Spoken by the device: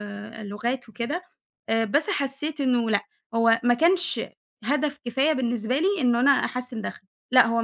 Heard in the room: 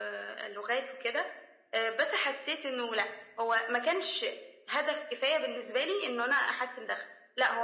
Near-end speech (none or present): none